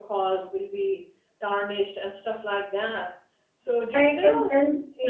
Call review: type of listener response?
taking over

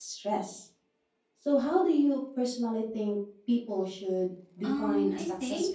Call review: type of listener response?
taking over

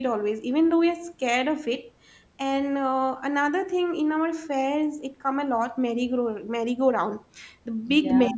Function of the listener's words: listening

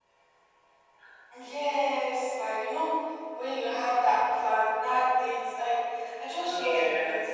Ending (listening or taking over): listening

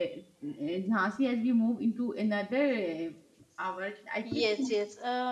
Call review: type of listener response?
taking over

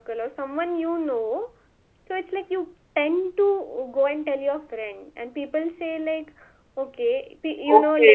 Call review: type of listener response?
taking over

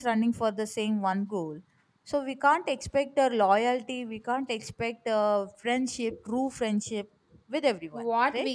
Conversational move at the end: taking over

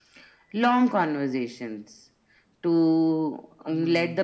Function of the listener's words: listening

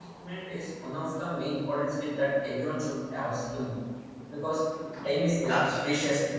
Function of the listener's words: listening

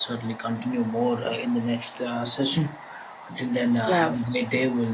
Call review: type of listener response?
listening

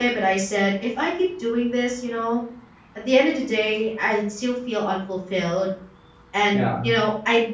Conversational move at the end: listening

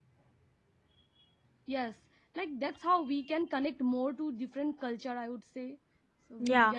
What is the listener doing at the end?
taking over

